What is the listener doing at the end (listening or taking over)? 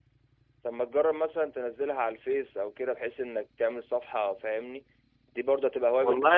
taking over